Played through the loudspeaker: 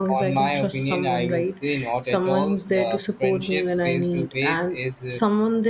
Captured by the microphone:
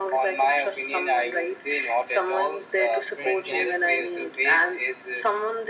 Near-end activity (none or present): present